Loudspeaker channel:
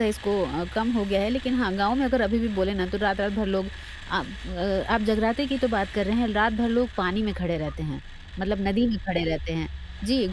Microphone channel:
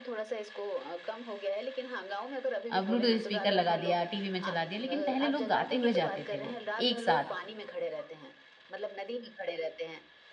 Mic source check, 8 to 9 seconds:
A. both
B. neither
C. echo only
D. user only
C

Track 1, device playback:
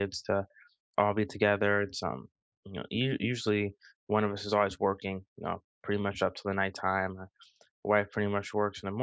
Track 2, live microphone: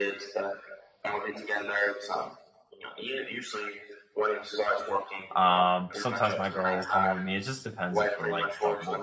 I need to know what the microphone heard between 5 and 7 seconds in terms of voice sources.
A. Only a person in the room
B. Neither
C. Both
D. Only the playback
C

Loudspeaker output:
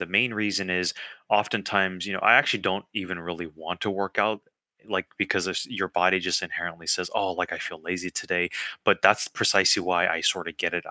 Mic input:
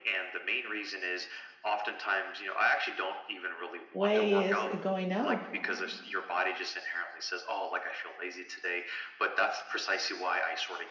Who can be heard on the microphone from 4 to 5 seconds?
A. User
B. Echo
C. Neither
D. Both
D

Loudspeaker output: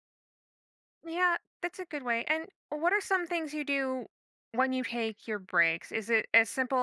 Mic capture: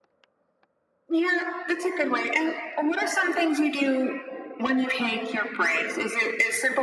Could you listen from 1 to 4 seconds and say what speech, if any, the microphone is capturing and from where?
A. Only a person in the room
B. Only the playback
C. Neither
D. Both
B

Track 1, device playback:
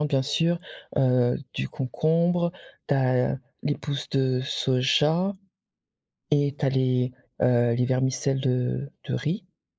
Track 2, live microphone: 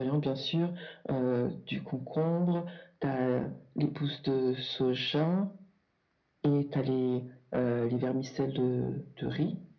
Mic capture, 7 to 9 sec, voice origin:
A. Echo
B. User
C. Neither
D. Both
A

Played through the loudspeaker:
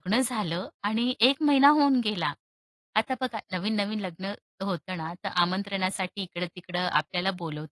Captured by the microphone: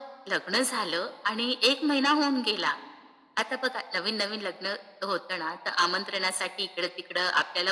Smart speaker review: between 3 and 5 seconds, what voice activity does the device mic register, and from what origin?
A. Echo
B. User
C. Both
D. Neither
A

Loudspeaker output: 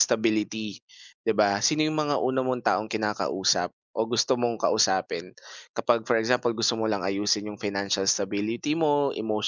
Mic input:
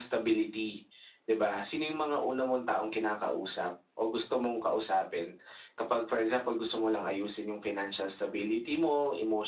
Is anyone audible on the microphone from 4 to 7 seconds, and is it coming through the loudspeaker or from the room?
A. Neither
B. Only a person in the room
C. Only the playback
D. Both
C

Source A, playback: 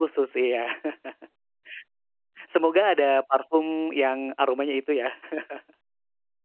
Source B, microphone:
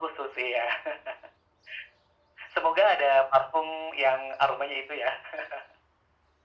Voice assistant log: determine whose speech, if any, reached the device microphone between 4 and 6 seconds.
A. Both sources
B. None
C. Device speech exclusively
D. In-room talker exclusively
C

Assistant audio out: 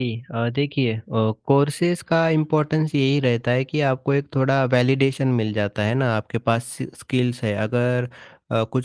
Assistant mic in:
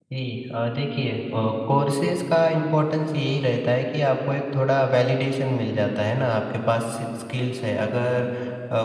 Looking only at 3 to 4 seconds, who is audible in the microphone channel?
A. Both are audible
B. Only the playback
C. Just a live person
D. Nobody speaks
B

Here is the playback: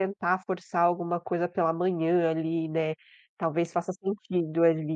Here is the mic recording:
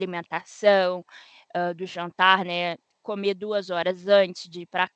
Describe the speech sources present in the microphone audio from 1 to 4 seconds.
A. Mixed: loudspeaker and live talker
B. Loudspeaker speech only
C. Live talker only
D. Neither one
C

